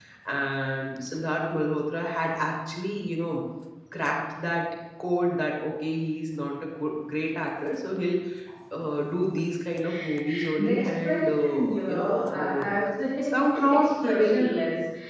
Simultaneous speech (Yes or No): Yes